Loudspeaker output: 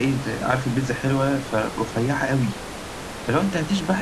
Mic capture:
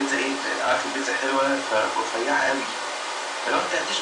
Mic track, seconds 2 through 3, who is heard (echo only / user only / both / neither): echo only